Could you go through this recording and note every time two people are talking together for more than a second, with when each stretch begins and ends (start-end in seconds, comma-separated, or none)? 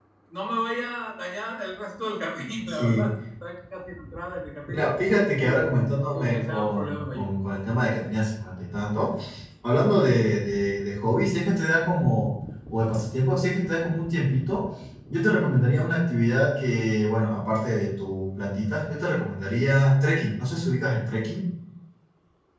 5.3-7.2